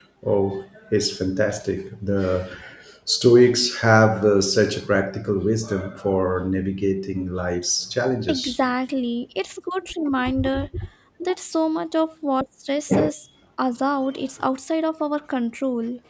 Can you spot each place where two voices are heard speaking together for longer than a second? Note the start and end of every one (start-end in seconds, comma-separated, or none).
none